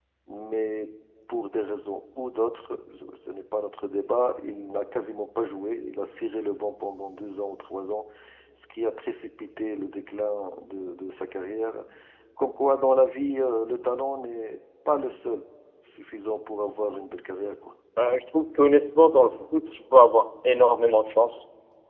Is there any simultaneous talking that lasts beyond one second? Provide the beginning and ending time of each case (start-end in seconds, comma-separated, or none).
none